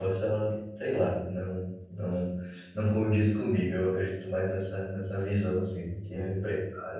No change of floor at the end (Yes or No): Yes